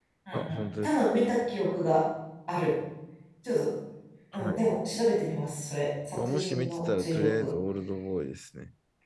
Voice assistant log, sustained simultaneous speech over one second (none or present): present